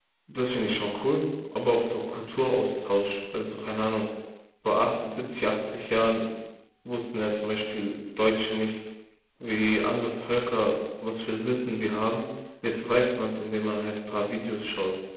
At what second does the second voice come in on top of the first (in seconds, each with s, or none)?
none